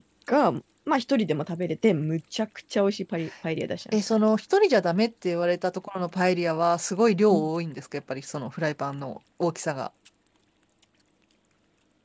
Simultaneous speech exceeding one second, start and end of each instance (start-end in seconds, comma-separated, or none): none